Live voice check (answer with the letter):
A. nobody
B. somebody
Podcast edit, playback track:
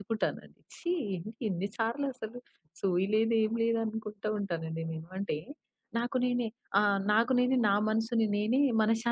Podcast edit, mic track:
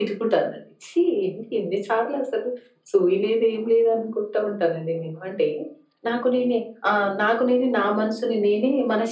A